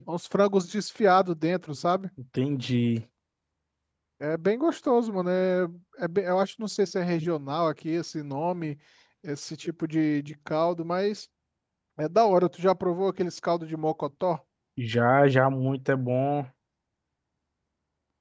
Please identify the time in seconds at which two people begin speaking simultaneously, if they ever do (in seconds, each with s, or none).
none